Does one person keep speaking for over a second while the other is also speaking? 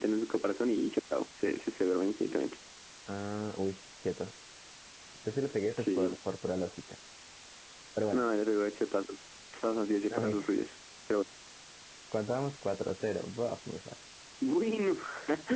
No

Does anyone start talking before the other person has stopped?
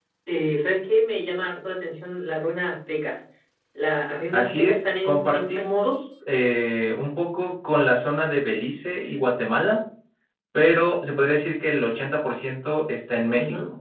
Yes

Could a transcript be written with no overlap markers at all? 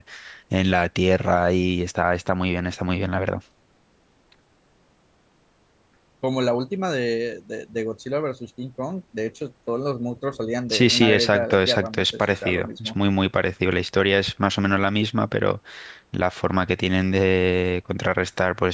No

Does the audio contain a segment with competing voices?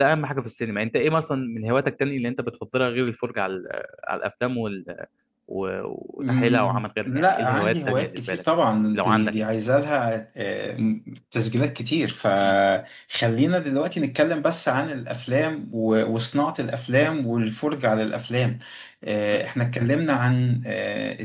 Yes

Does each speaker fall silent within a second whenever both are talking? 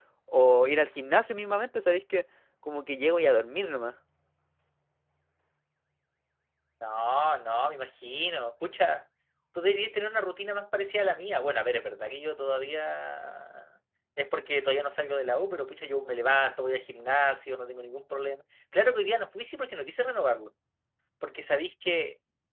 Yes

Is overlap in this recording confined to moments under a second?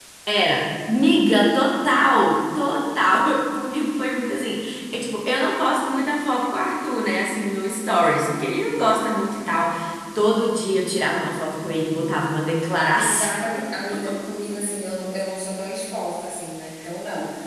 Yes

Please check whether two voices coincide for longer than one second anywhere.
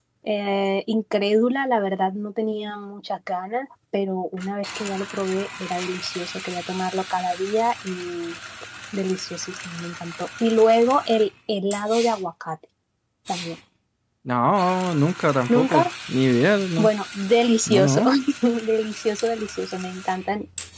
No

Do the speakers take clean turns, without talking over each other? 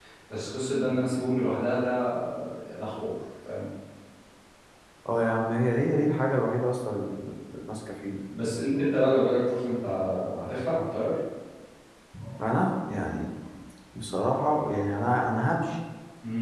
Yes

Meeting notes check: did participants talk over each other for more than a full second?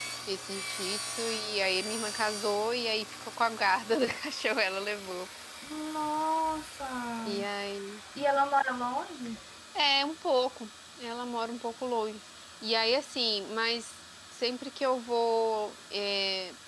No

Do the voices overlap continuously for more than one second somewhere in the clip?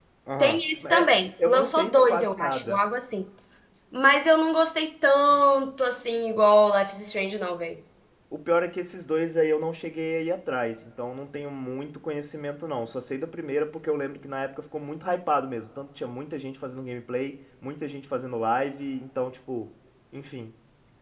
Yes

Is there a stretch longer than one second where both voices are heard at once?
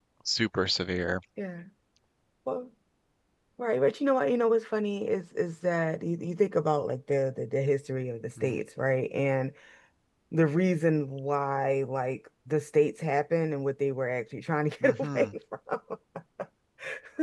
No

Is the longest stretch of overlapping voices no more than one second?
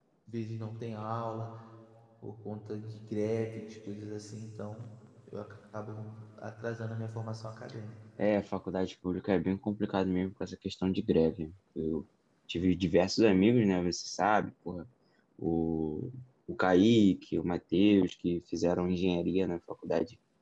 Yes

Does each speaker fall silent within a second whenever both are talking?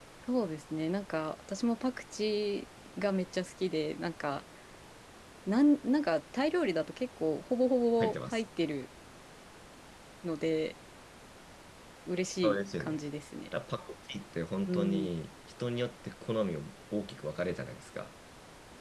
Yes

